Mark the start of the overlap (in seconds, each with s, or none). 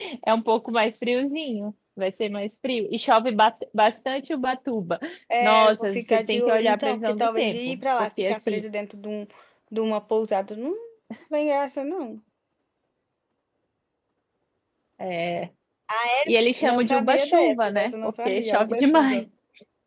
5.4 s